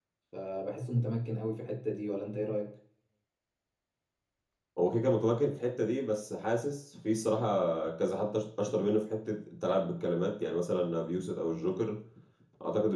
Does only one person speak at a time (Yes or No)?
Yes